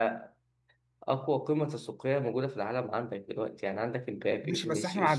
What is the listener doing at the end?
taking over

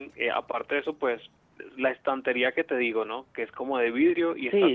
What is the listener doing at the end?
taking over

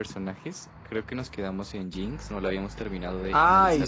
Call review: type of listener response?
taking over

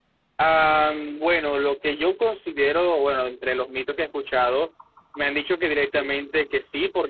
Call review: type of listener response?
listening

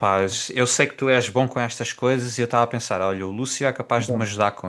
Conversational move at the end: listening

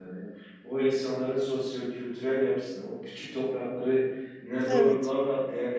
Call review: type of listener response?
listening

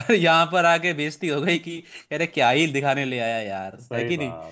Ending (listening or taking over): taking over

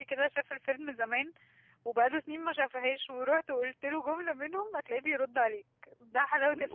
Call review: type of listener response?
taking over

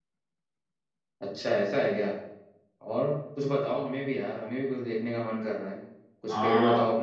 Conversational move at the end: listening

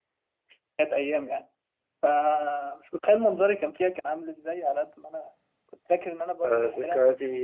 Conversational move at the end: taking over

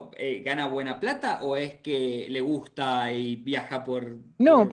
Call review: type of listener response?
taking over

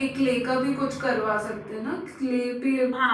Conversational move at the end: taking over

